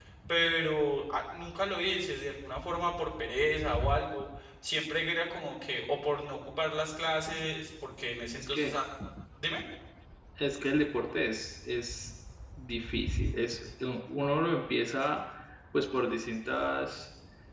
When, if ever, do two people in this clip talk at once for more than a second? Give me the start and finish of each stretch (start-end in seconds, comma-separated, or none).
none